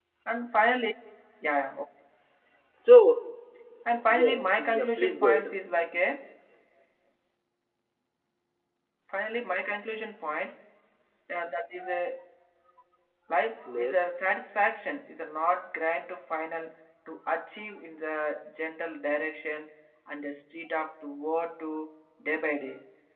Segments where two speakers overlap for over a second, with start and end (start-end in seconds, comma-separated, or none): 4.1-5.5